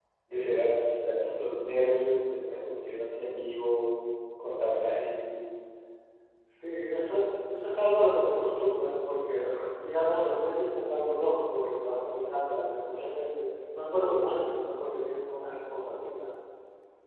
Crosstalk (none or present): none